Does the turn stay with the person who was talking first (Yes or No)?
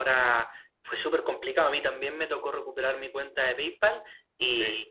Yes